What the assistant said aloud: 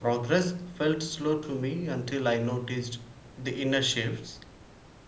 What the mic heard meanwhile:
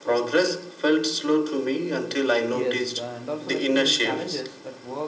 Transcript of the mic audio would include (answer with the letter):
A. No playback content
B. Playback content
B